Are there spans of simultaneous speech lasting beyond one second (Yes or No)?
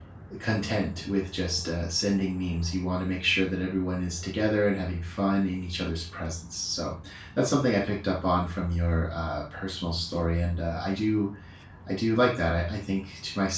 No